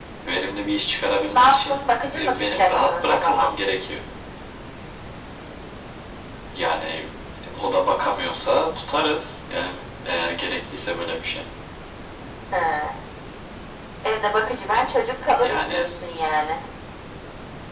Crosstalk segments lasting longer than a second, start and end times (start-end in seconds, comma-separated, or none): 2.2-3.5